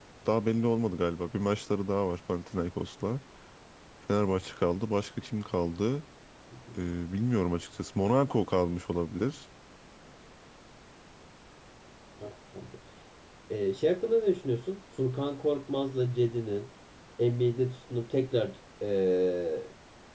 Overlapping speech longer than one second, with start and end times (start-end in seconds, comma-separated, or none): none